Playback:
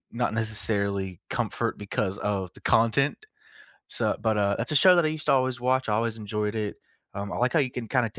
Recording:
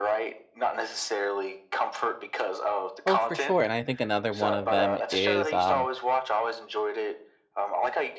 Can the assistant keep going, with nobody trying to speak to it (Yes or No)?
No